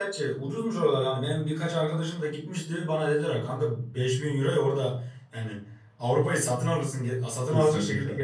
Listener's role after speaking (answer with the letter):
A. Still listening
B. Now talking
B